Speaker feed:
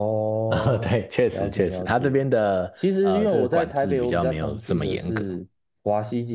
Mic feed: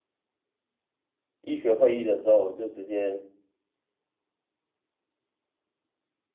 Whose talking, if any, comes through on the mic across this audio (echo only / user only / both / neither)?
user only